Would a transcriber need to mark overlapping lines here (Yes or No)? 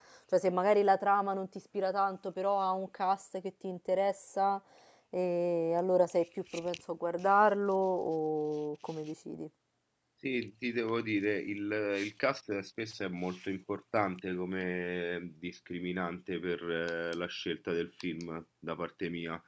No